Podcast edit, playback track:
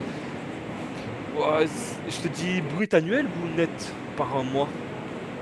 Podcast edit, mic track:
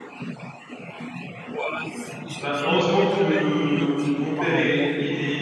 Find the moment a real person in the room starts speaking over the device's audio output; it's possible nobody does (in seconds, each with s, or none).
2.4 s